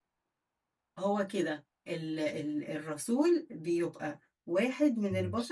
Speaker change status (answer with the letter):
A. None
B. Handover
A